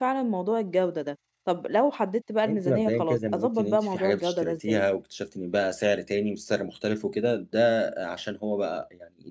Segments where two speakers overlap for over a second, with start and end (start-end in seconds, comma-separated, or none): 2.5-4.8